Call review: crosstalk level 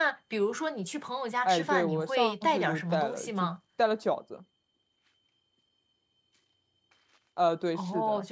present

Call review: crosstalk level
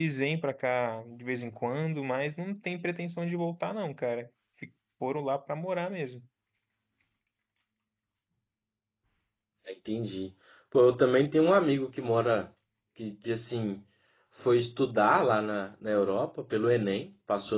none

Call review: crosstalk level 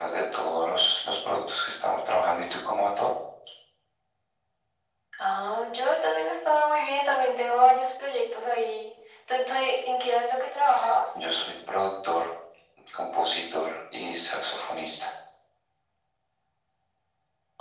none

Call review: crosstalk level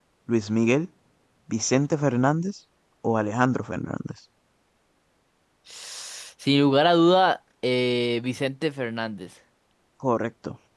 none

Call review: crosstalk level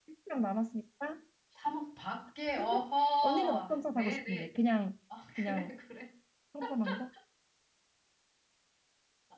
present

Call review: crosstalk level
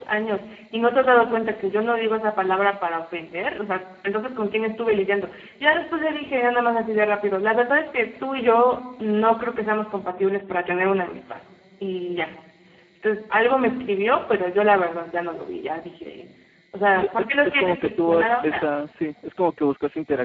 present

